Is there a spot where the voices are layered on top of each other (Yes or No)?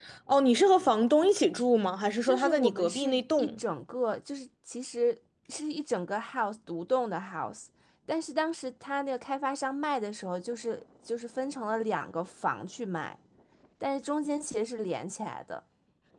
Yes